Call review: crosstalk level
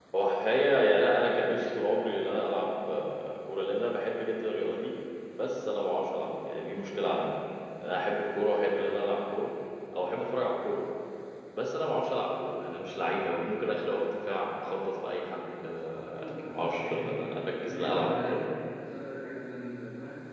present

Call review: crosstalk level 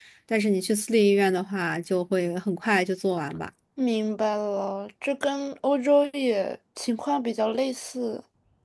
none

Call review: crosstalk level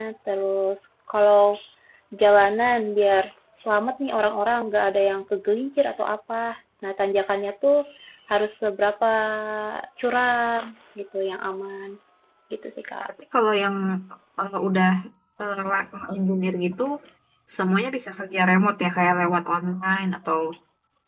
none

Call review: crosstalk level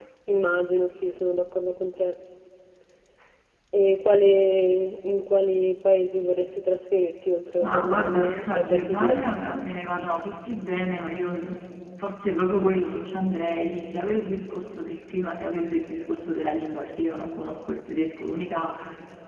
present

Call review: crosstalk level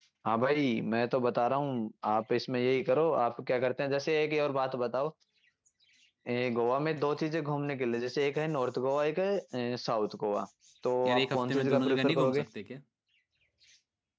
present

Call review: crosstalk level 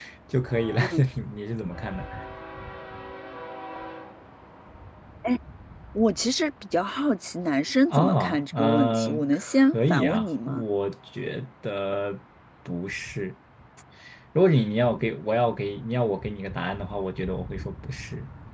present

